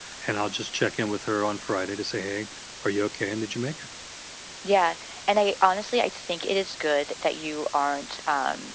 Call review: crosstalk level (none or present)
none